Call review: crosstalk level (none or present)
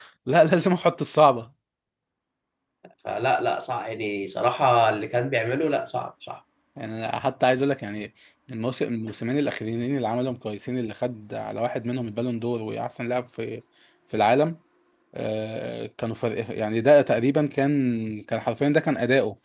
none